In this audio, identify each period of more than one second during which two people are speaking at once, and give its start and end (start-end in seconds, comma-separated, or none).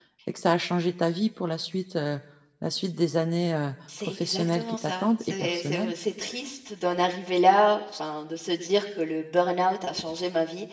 4.0-5.9